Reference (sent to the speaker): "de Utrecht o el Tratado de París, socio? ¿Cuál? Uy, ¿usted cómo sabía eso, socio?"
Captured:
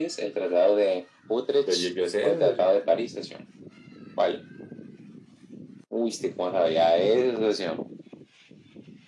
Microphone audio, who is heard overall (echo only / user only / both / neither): both